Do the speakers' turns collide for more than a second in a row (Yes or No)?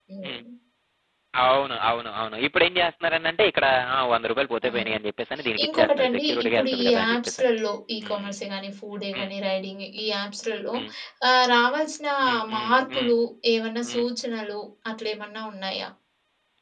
Yes